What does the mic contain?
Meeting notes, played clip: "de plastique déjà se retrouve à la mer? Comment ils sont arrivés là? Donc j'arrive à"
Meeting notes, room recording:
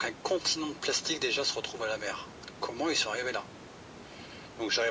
echo only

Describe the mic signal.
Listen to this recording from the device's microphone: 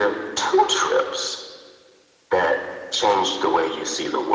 echo only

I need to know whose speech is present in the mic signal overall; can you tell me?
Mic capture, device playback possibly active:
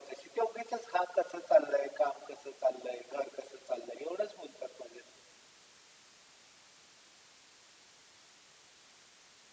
echo only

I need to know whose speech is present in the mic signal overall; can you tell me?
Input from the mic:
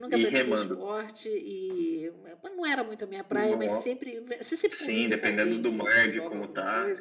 both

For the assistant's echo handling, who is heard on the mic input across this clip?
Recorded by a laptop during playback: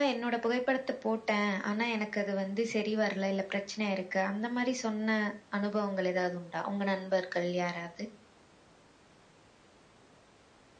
echo only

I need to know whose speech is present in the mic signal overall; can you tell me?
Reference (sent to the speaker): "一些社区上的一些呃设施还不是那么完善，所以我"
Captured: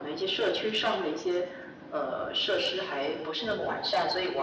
echo only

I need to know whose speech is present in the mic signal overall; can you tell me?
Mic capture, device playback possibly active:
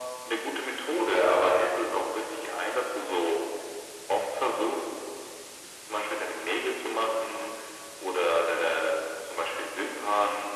echo only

